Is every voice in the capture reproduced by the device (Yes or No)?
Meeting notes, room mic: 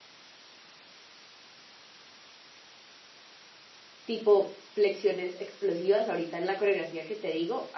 No